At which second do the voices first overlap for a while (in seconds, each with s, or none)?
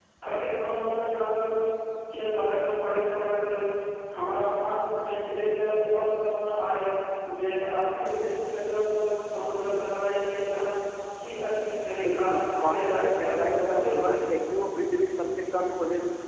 12.0 s